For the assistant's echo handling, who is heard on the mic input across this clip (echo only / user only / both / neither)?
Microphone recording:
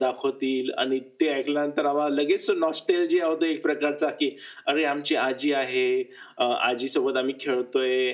echo only